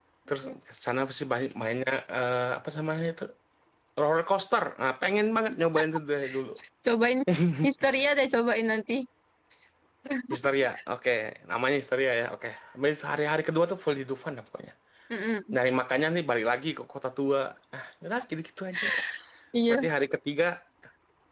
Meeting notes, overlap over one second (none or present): none